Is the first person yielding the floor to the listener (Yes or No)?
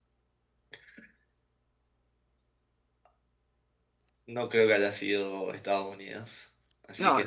No